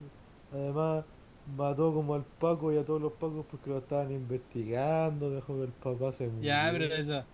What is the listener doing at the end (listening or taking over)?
taking over